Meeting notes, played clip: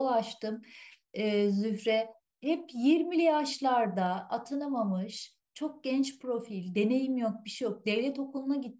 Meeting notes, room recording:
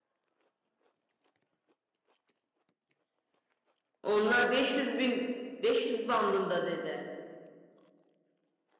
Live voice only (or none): Onlar 500 bin 500 bandında dedi.